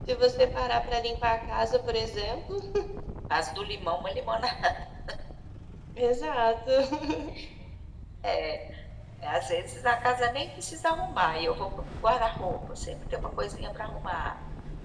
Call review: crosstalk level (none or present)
none